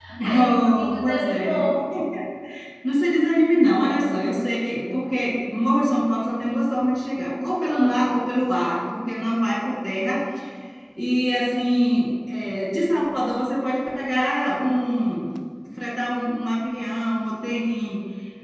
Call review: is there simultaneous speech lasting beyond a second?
Yes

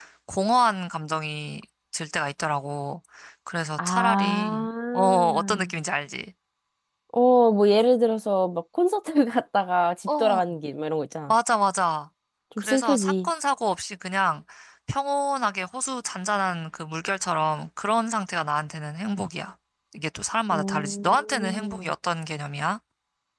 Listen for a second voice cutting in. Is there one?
Yes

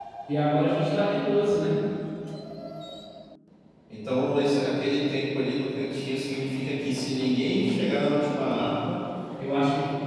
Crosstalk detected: No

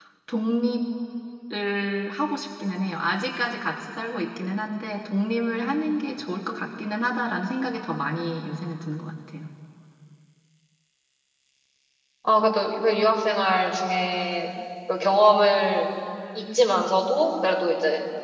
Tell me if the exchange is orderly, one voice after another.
Yes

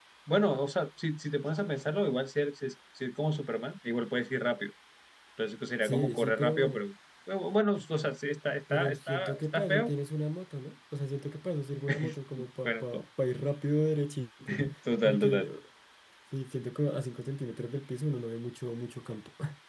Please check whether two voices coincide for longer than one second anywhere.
Yes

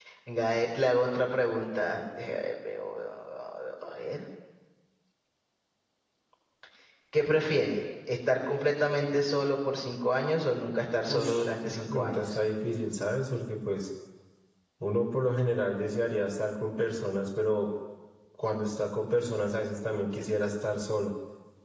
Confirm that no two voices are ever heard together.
No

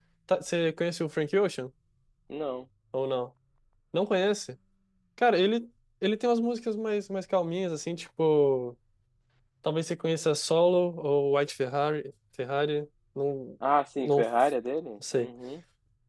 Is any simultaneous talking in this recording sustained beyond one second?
No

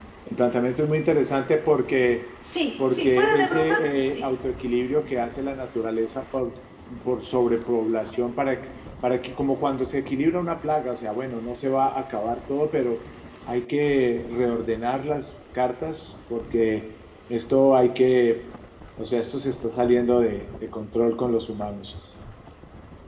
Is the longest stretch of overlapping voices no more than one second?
No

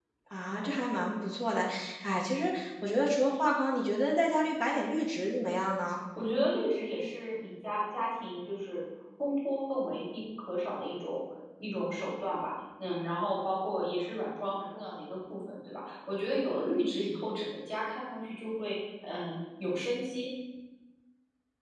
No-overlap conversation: Yes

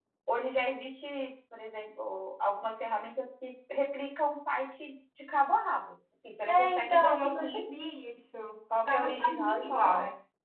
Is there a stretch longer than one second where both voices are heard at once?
Yes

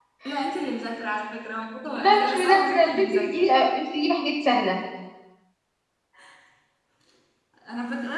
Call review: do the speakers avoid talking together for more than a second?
No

